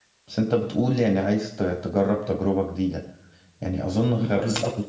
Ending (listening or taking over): listening